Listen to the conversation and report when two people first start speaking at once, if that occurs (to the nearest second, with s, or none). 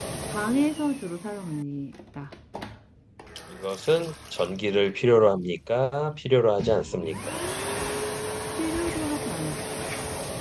none